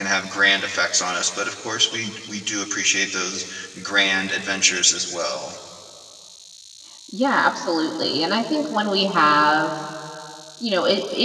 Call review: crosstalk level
none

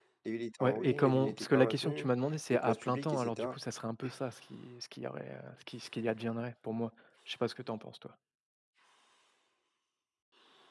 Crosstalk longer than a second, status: present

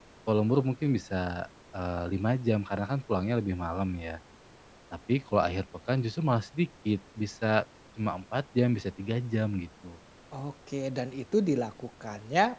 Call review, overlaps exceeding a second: none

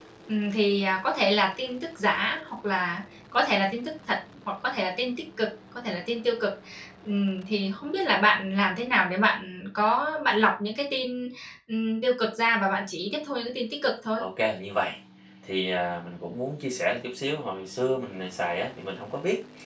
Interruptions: none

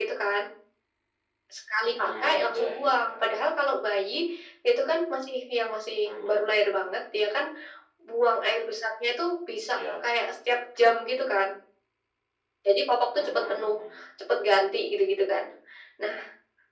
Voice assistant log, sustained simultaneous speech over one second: present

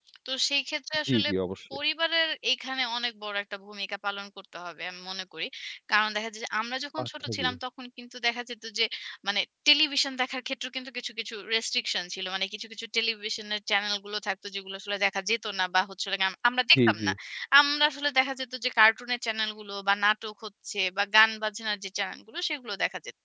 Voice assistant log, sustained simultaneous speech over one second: none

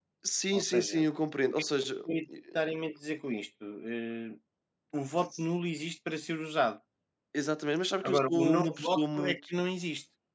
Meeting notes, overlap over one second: present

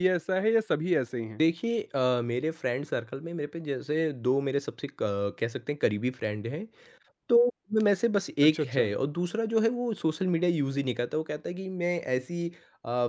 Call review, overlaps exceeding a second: none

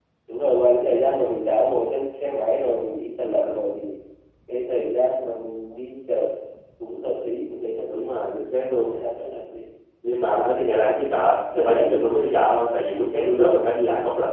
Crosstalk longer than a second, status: none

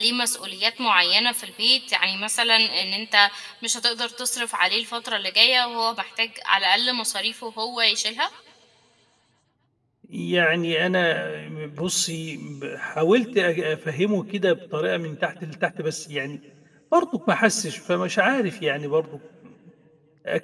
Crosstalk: none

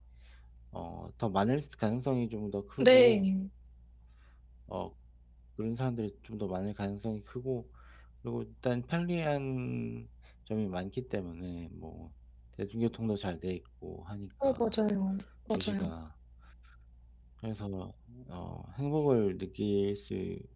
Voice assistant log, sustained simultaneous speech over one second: none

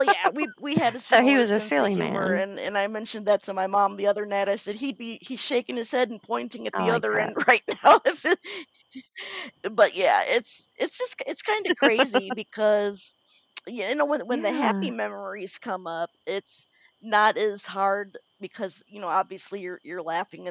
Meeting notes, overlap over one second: present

